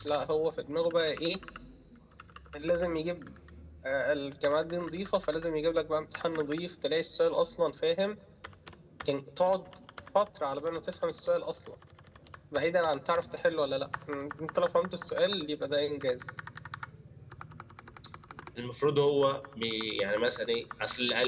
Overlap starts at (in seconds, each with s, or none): none